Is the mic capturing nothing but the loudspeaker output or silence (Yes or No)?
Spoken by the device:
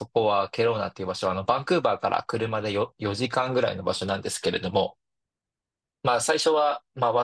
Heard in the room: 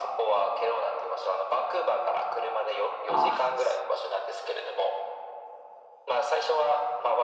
No